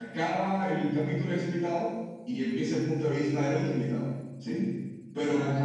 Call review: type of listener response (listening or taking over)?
listening